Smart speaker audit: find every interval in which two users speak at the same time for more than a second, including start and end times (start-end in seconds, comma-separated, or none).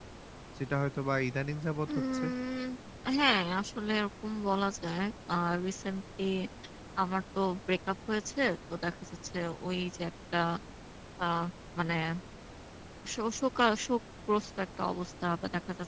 none